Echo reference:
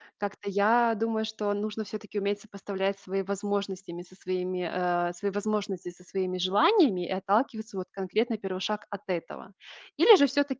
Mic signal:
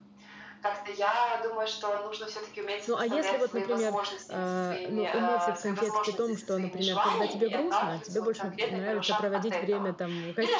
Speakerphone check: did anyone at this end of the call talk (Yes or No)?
Yes